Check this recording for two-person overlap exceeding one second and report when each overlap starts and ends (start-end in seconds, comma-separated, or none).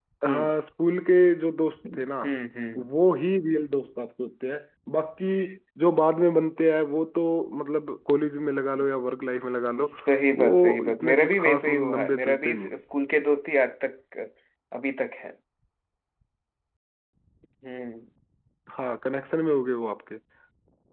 10.3-12.7